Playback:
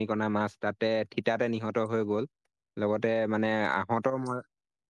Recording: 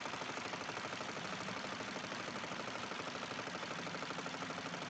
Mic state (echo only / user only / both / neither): neither